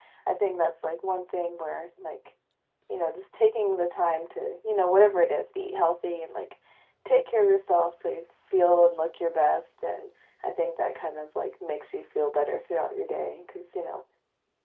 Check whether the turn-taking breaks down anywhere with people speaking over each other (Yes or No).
No